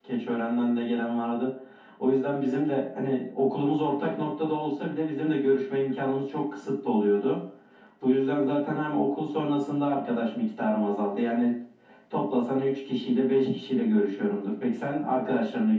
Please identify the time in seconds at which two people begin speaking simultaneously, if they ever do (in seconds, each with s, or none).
none